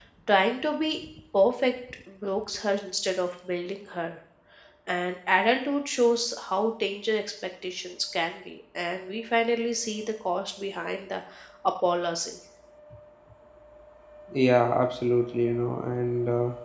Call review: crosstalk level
none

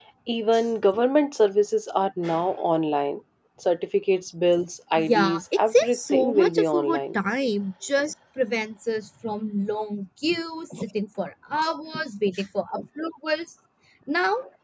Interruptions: present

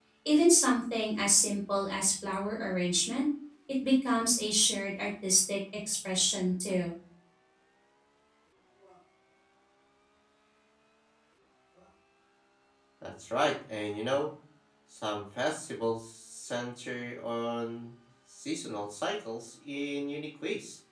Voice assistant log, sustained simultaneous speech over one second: none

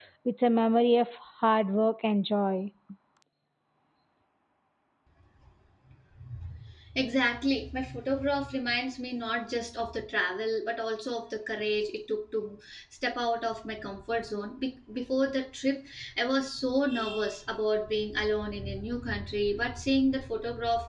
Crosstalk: none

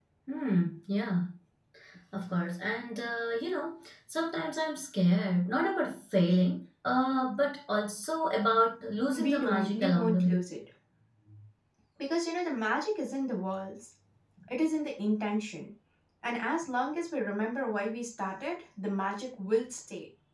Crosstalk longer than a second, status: present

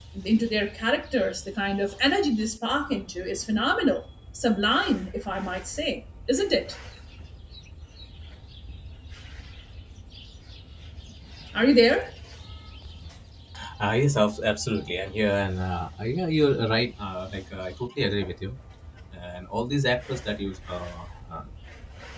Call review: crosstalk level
none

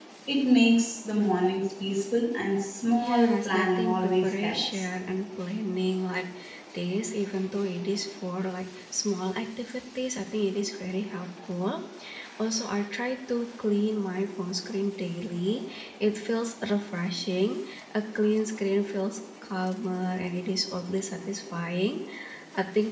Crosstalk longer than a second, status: present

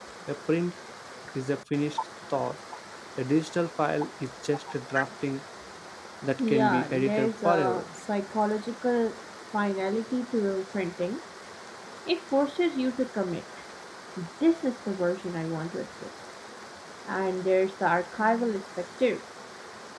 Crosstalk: present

